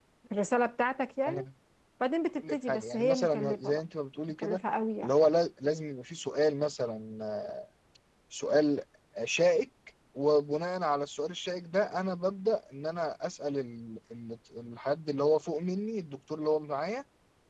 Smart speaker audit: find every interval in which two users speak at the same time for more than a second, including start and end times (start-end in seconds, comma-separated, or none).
2.4-3.8